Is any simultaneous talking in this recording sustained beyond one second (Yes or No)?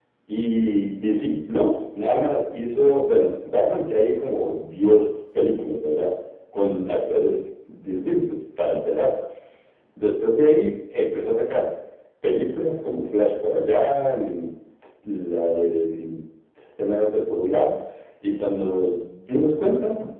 No